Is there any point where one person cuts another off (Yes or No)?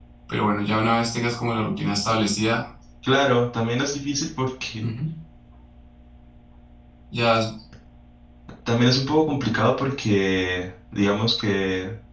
No